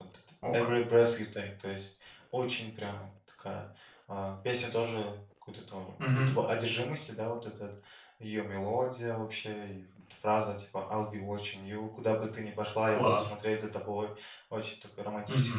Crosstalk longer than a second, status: none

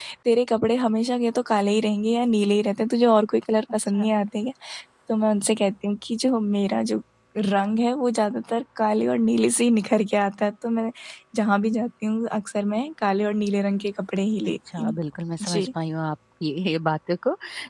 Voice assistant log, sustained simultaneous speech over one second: none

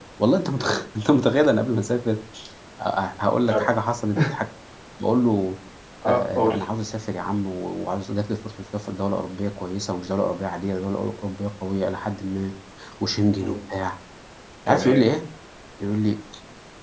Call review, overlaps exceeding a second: none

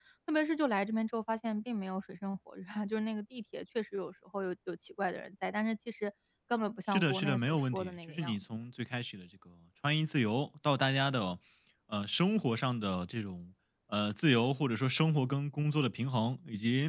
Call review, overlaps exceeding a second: present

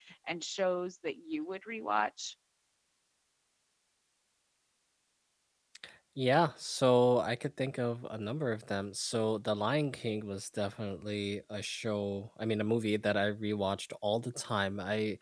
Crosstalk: none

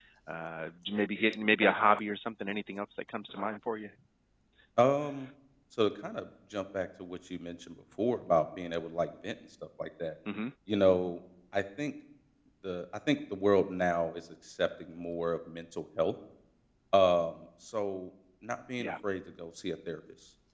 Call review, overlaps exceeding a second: none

